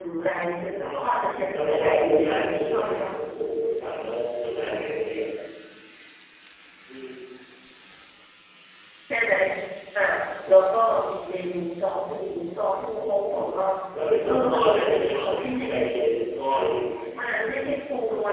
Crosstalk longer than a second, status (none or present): present